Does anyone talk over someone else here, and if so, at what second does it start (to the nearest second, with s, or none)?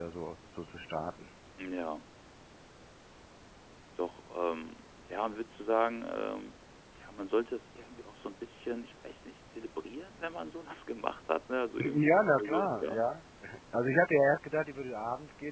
12 s